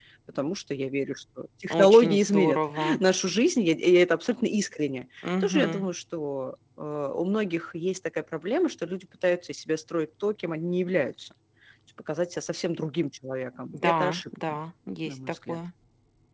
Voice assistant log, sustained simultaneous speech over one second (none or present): present